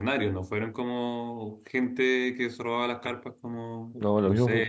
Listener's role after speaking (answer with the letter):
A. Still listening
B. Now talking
B